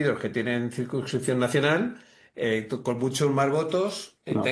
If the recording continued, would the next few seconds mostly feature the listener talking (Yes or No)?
No